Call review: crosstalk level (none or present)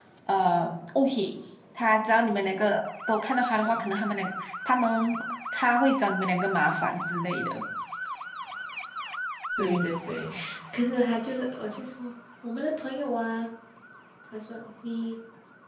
none